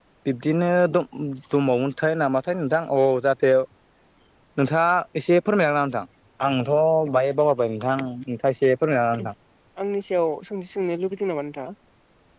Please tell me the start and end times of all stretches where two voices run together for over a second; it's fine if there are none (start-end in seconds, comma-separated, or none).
none